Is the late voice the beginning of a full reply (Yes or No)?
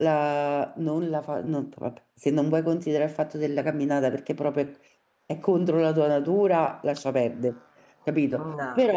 No